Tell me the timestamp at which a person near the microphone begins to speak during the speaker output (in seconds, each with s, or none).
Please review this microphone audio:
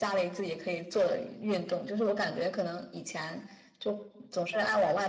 none